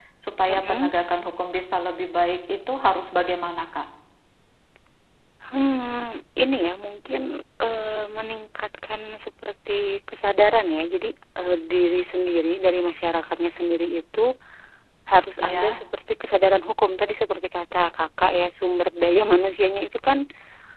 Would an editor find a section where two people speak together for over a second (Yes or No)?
No